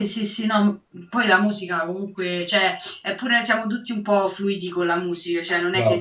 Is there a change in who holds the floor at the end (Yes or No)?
No